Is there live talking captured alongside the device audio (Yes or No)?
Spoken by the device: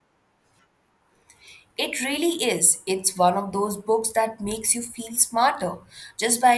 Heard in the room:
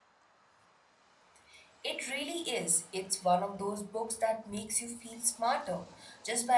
No